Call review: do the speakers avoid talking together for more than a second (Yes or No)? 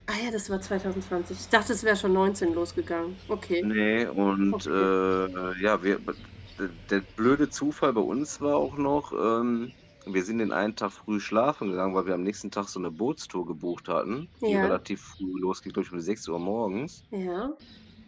Yes